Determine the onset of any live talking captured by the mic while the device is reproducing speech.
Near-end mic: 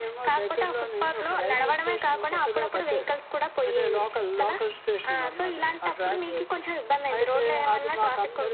none

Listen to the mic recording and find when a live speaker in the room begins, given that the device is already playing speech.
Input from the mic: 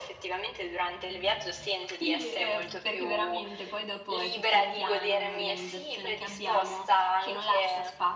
2 s

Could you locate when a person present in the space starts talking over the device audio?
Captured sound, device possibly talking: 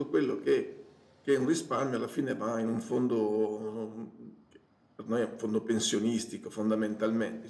none

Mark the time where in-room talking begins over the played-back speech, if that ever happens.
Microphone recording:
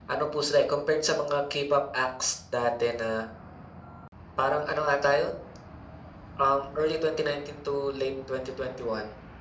none

